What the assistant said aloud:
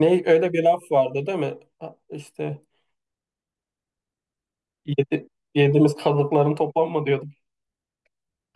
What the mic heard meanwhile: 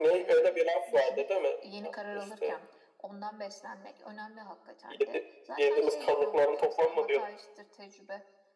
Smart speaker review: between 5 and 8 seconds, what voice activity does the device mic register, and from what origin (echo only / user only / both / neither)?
both